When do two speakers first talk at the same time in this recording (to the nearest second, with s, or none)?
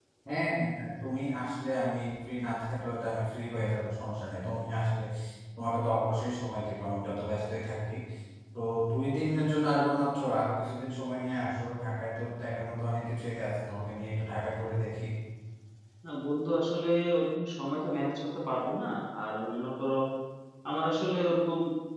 none